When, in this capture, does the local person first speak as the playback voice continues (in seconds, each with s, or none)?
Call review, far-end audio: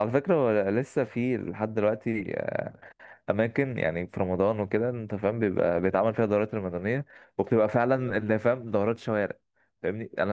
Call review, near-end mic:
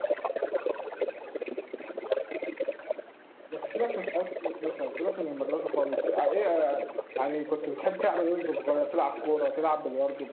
3.5 s